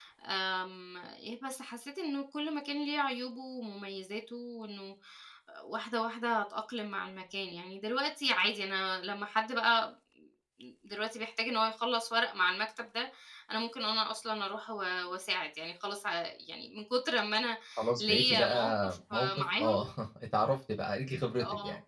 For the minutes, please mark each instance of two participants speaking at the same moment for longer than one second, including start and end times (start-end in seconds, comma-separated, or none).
18.0-19.8